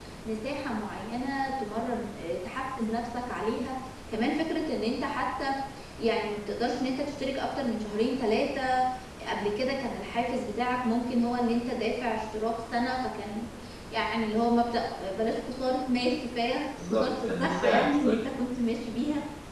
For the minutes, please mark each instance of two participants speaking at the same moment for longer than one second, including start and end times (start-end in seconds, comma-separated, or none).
16.9-18.2